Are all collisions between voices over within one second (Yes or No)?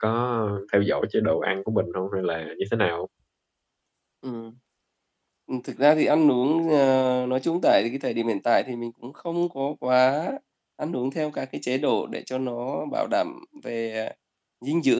Yes